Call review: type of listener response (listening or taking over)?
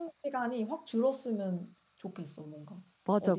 taking over